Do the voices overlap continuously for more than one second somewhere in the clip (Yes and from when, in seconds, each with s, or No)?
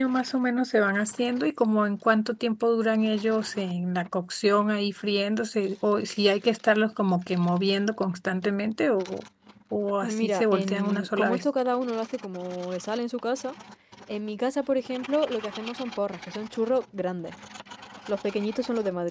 Yes, from 10.0 s